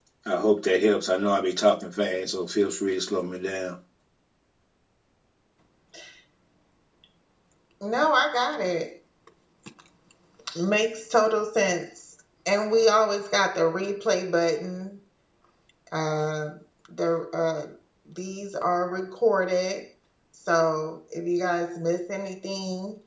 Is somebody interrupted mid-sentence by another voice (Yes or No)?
No